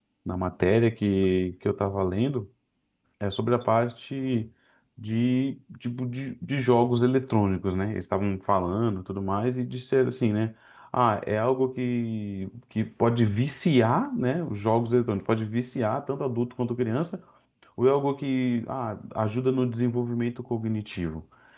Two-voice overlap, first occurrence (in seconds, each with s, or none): none